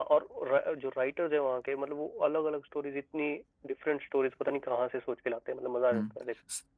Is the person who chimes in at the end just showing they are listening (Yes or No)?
No